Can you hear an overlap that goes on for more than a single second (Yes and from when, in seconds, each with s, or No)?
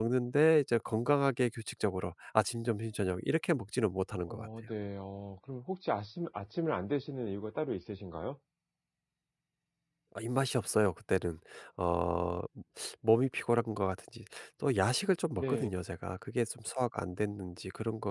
No